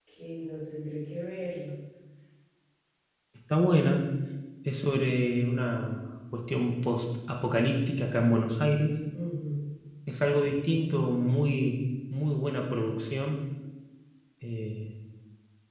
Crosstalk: none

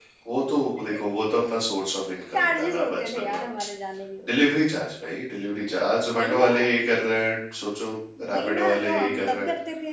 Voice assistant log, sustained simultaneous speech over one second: present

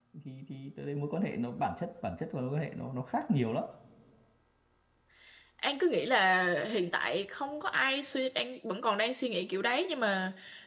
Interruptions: none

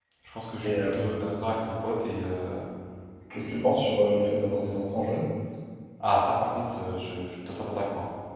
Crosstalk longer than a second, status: none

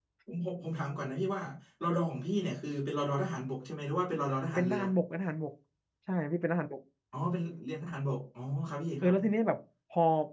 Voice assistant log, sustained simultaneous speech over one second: none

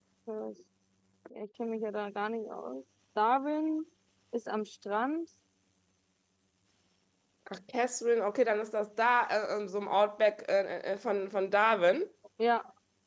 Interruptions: none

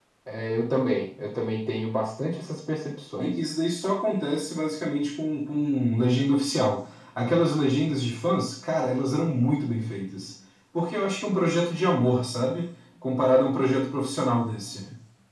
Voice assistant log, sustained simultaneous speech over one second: none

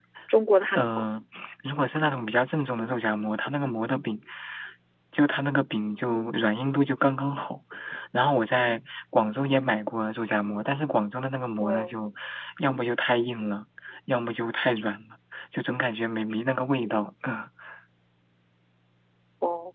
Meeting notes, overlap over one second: none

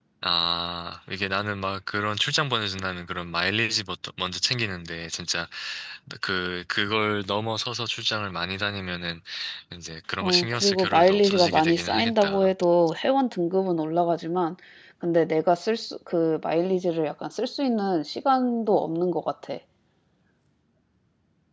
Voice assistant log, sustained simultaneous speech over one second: present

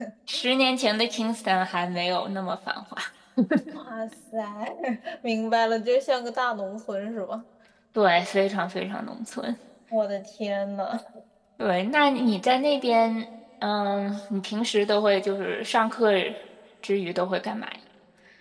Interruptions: none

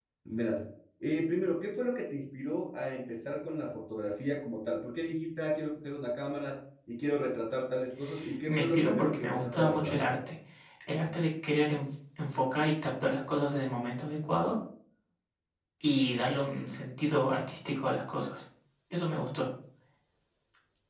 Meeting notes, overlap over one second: present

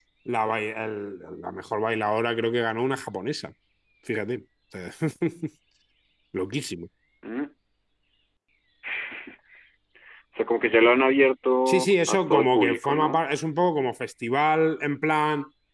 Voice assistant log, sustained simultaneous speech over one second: present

